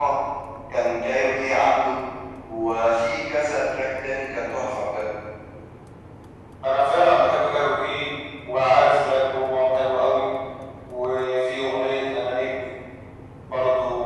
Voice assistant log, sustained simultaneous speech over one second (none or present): none